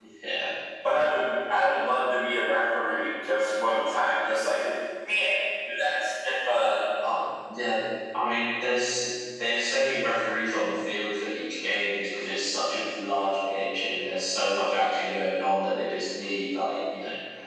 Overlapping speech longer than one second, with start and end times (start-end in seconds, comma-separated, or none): none